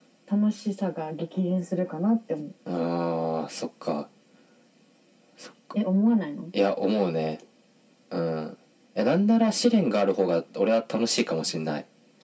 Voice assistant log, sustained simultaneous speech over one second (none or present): none